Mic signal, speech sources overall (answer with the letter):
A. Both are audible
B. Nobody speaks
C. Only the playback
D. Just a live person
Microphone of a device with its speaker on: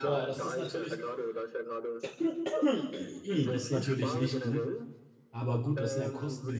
A